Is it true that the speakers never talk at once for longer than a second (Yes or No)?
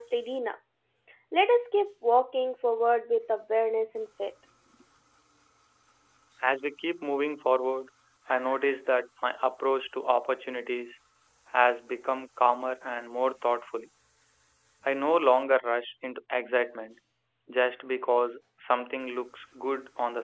Yes